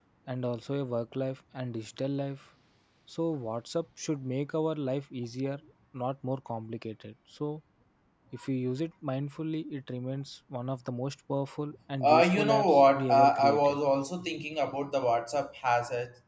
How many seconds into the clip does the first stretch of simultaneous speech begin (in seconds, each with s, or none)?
12.0 s